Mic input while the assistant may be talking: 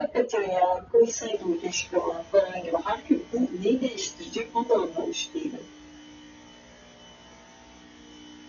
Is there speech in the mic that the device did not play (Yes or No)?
No